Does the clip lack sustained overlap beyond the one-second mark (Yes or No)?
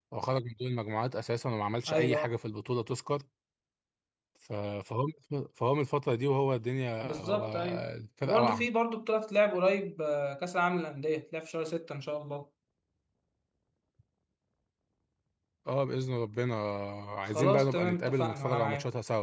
No